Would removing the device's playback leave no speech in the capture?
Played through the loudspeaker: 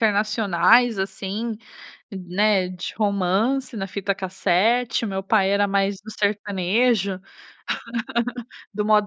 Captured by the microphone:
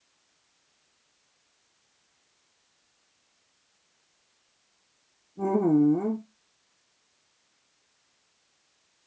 No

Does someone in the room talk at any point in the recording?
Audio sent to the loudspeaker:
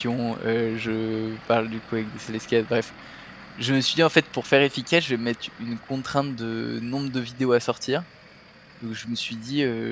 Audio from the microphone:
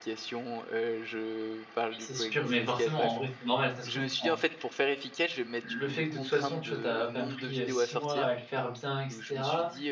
Yes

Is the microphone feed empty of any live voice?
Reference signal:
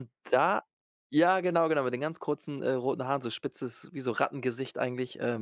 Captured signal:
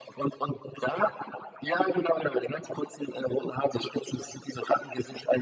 Yes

